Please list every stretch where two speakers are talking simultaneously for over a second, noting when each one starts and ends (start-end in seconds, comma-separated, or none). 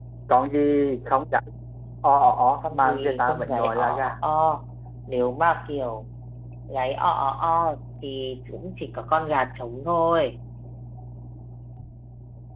2.6-4.2